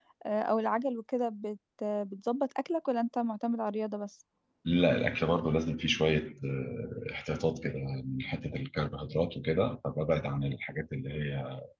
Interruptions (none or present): none